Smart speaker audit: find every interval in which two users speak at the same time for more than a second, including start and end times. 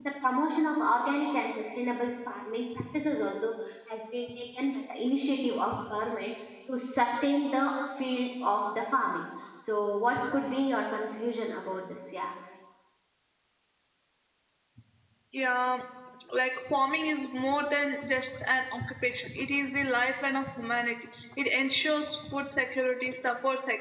none

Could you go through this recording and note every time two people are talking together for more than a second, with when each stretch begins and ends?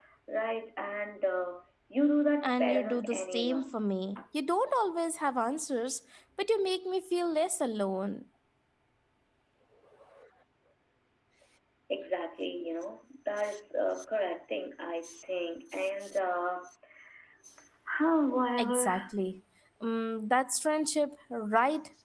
2.4-3.8

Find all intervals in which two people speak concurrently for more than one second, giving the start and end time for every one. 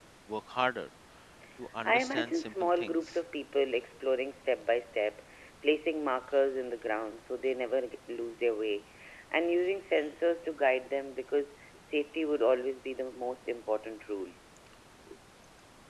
1.8-3.2

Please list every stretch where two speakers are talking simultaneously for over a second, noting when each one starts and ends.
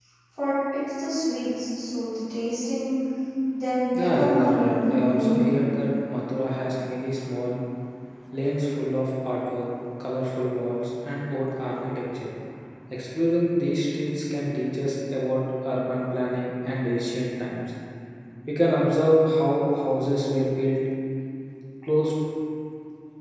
3.9-5.7

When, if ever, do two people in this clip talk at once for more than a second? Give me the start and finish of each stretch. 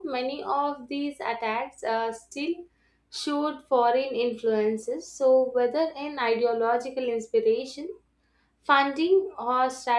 none

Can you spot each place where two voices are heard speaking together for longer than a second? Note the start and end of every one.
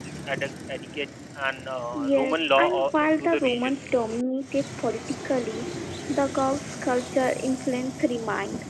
1.9-3.7

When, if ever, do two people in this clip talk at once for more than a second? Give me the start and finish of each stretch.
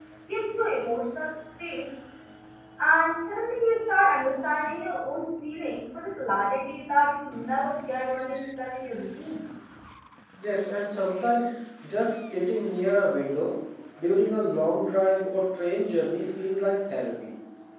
none

